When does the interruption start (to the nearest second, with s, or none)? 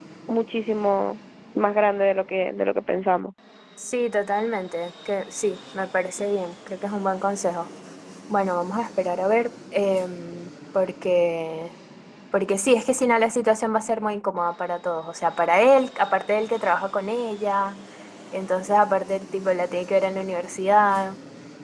none